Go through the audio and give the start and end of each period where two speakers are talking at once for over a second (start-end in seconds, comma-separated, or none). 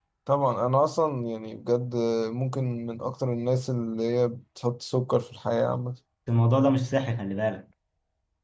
none